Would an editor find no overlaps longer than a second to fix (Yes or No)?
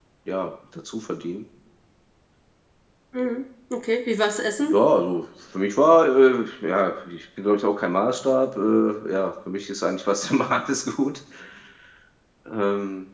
Yes